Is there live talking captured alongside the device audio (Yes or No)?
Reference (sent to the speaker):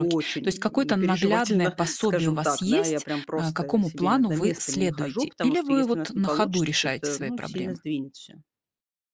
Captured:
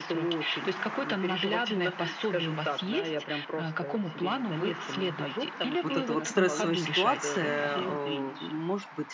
Yes